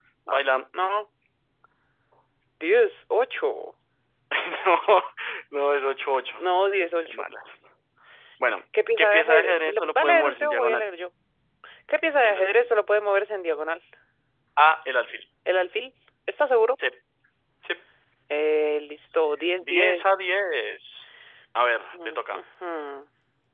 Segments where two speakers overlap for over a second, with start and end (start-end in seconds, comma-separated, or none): 9.0-10.8